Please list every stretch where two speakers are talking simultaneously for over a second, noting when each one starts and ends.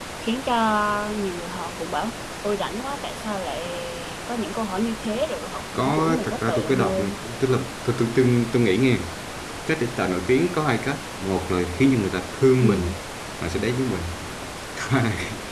5.7-7.2

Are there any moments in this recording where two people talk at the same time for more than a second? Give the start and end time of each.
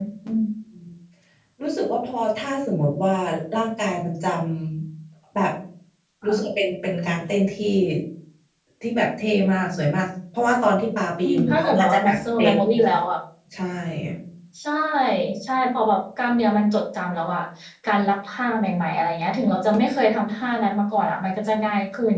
11.2-12.9

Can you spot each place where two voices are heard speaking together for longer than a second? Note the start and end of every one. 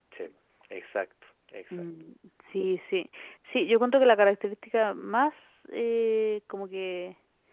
none

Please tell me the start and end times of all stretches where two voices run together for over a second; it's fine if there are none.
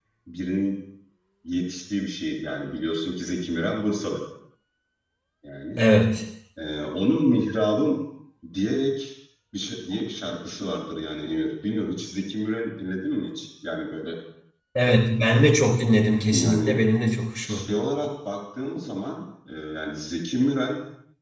none

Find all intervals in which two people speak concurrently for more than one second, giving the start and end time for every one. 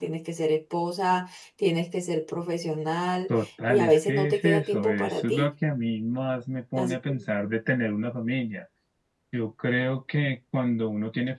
3.4-5.5

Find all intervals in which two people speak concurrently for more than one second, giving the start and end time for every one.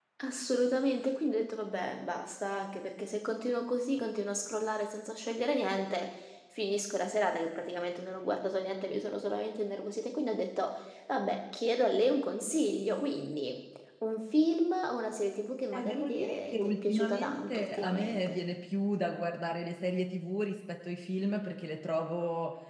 15.7-18.4

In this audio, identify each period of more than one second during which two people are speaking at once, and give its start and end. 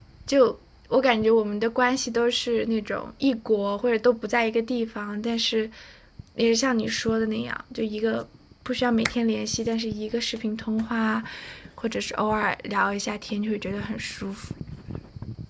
none

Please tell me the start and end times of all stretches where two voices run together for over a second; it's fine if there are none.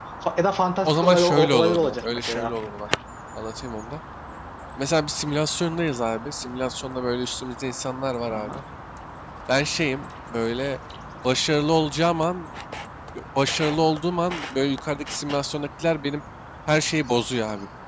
0.8-2.5

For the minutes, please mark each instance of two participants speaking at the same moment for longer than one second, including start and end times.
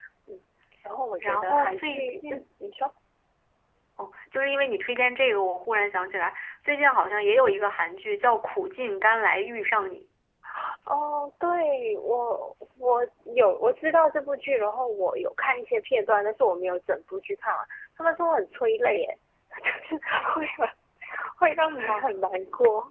1.2-2.4

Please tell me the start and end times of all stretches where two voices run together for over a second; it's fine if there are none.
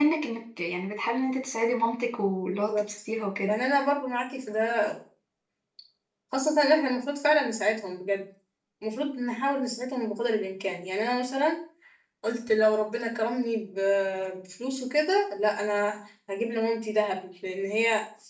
none

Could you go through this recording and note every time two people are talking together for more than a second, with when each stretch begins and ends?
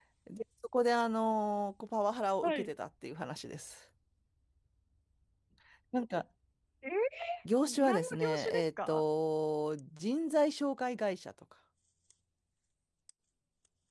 7.6-9.0

